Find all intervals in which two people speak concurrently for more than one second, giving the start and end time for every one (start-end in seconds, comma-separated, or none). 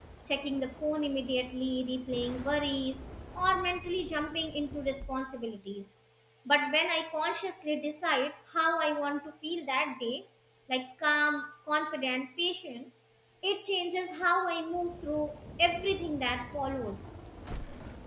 none